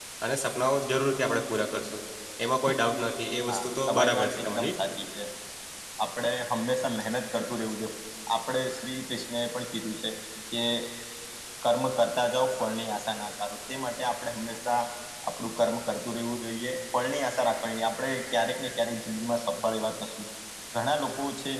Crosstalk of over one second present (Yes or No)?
Yes